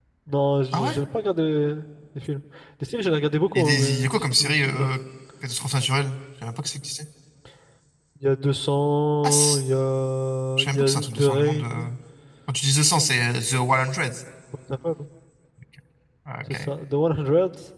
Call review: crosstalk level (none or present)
present